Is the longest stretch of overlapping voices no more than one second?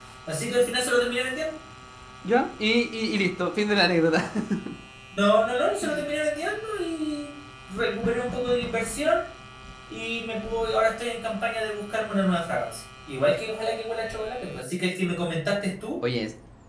Yes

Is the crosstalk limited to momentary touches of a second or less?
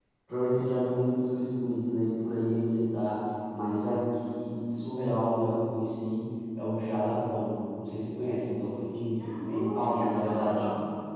No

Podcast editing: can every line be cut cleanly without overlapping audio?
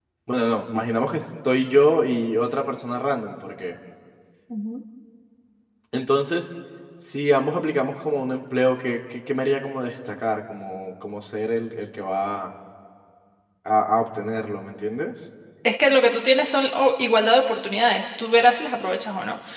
Yes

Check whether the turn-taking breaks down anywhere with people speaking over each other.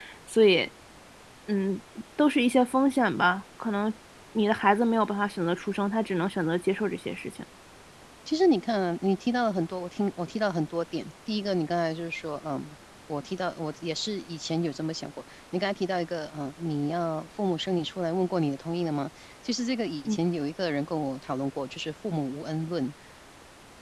No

